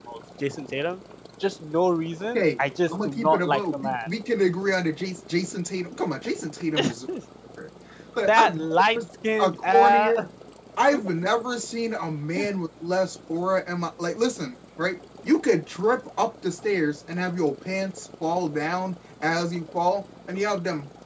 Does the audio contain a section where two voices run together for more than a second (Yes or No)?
Yes